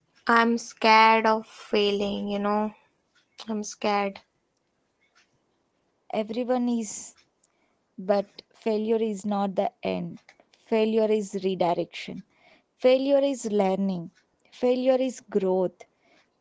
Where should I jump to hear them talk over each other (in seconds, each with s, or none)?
none